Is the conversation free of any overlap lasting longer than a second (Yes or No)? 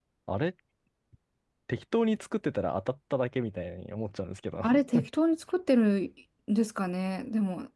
Yes